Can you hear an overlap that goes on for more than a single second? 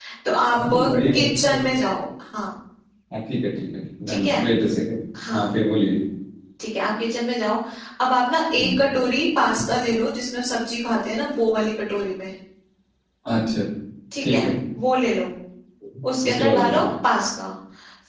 No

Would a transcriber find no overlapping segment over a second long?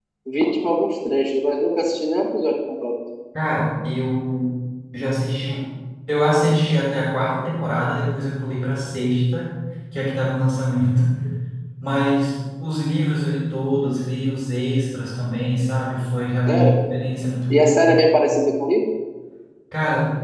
Yes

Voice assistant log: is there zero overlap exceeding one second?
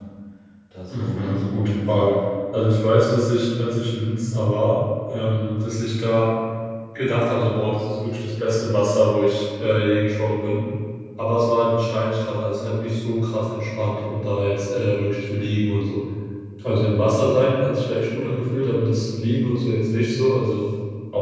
No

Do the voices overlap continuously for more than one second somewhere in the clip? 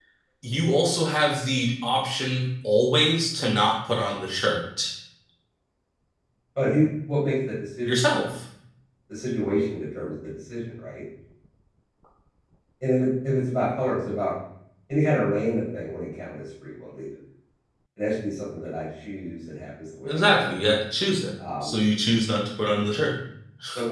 No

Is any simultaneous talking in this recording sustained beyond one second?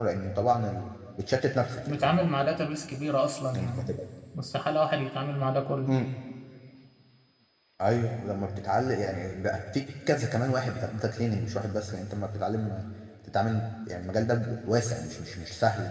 No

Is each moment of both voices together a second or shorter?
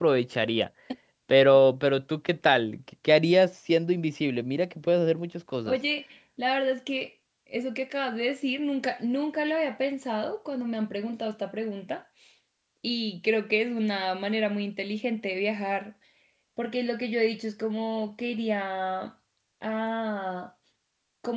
Yes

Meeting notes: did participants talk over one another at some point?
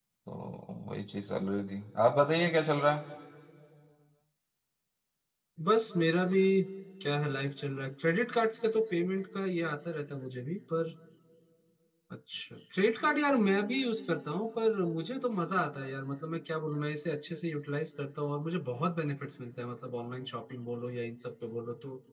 No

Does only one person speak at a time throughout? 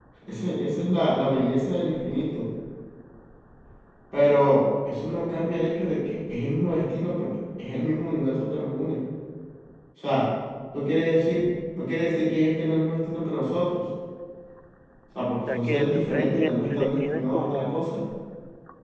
No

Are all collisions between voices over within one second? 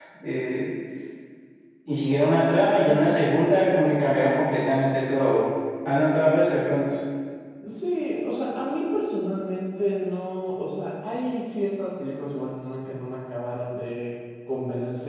Yes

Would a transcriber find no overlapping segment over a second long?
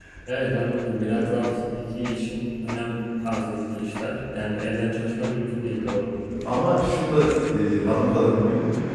Yes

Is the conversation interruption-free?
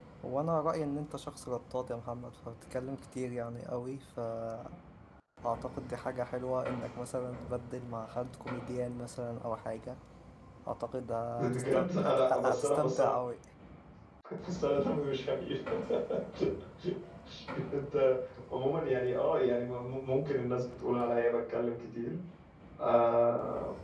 No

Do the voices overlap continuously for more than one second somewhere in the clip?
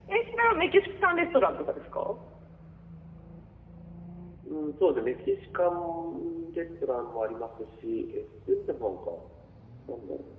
No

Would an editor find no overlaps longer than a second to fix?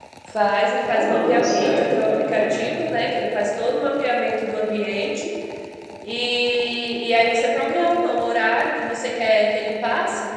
No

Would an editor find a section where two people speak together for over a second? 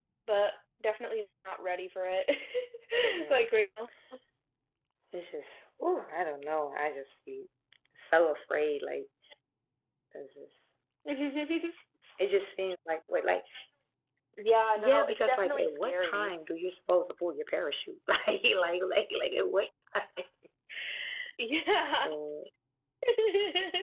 Yes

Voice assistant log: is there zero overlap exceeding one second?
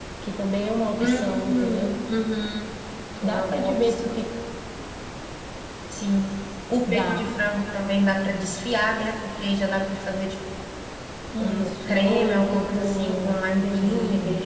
No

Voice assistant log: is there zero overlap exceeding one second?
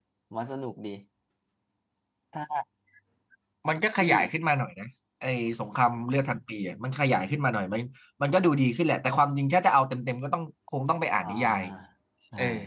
Yes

